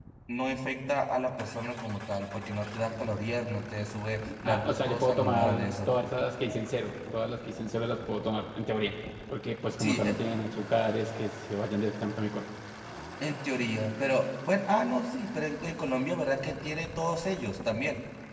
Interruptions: present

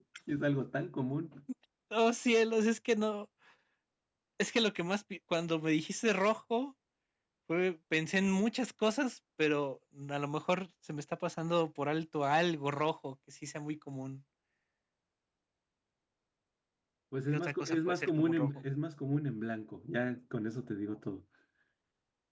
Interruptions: present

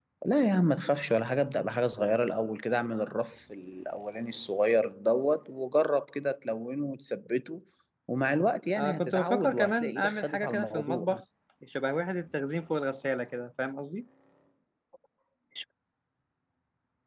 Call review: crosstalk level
present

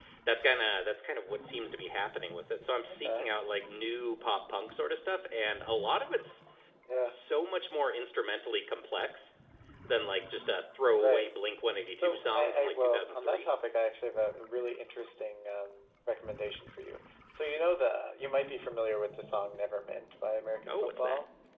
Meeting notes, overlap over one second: present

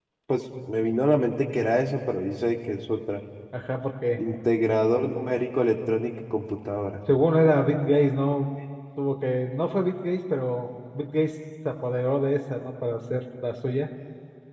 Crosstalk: none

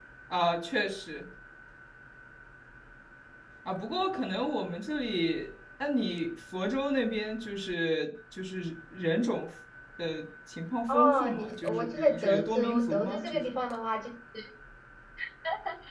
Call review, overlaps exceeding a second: present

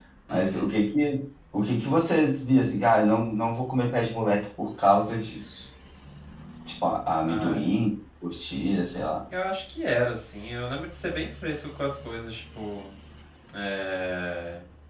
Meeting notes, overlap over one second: none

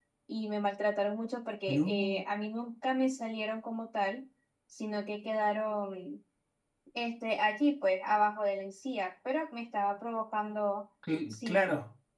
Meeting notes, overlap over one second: none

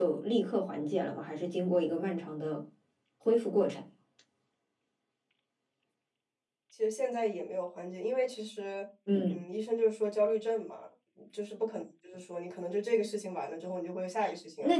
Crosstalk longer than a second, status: none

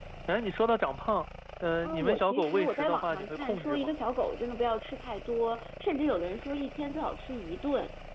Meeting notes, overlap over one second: present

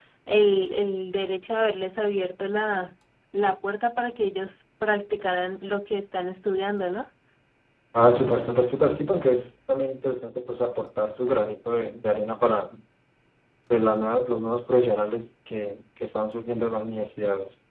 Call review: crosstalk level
none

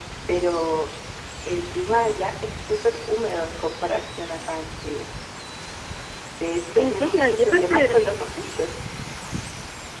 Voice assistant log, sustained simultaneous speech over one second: present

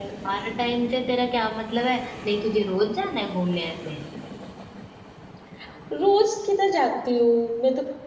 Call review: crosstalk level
none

